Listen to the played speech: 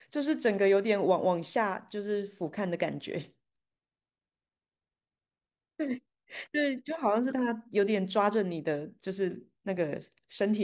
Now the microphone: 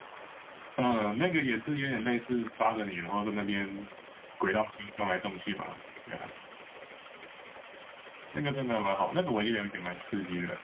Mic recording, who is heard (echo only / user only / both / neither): user only